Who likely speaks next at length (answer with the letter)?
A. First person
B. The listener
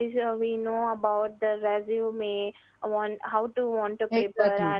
A